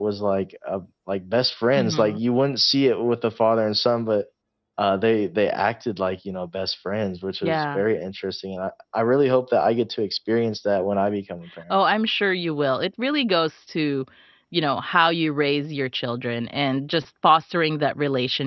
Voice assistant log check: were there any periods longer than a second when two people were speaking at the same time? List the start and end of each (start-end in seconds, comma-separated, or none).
none